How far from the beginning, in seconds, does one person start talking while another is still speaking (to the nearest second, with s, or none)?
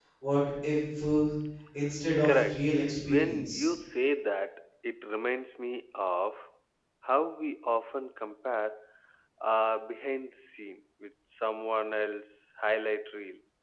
2 s